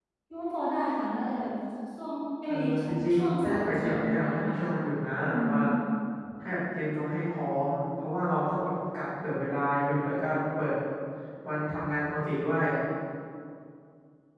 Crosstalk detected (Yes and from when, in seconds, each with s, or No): Yes, from 2.5 s